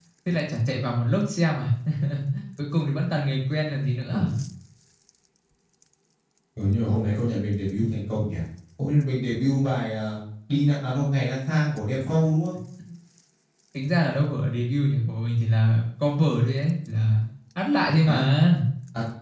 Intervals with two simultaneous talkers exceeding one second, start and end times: none

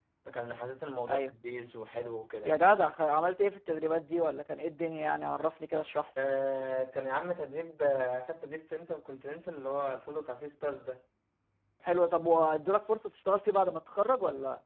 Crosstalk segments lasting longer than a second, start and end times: none

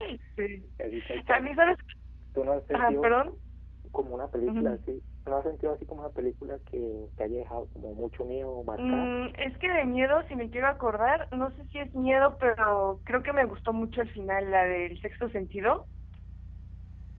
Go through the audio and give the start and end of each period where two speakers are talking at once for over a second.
none

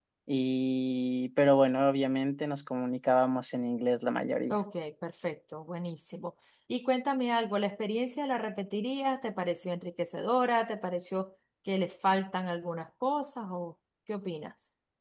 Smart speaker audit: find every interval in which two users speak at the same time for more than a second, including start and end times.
none

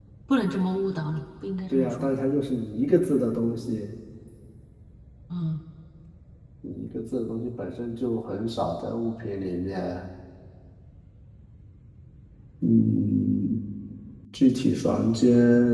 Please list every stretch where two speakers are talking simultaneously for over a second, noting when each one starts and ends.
none

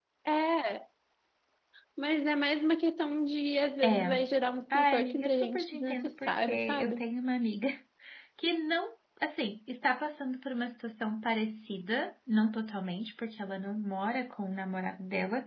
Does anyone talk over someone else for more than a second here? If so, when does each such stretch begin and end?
4.7-7.0

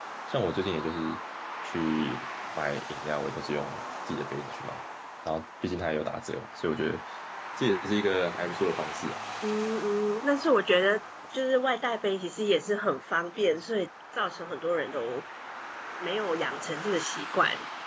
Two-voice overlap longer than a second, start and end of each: none

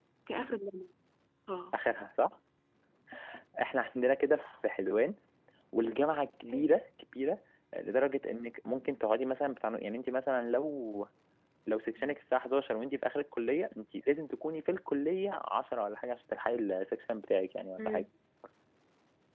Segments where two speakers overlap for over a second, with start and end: none

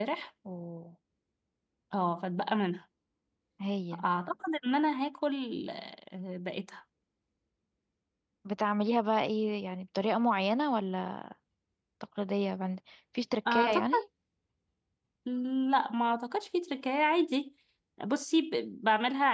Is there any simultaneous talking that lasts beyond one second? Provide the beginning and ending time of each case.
none

